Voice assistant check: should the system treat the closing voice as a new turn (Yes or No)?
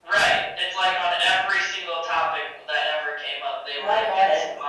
No